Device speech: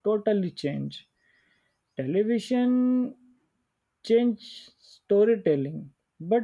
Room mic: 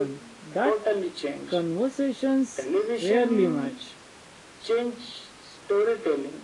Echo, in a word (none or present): present